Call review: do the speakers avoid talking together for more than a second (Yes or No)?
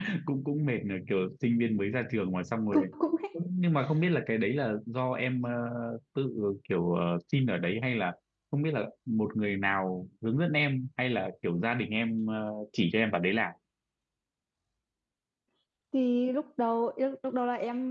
Yes